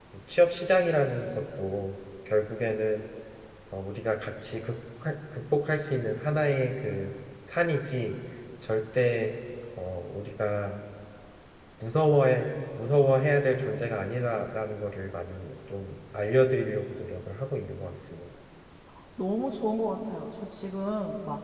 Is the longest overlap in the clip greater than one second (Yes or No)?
No